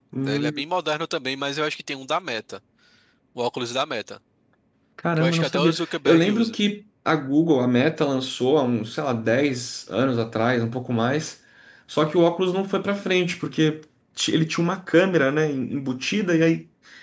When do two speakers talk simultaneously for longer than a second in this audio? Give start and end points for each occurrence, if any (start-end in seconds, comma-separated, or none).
5.2-6.5